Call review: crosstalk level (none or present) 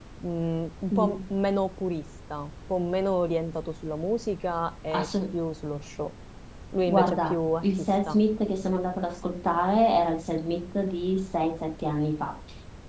present